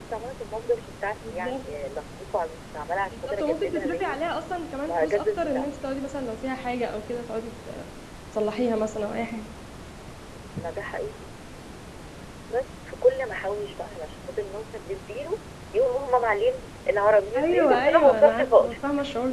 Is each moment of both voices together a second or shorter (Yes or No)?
No